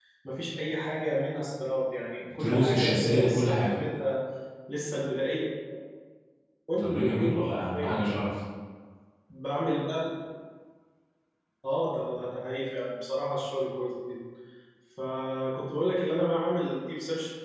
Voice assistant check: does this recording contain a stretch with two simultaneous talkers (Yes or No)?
Yes